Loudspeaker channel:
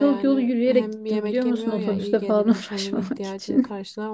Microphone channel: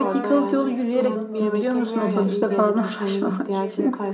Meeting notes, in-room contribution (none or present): present